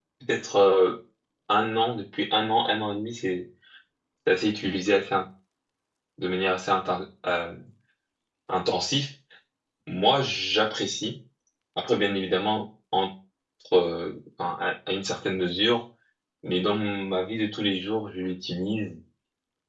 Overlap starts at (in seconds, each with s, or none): none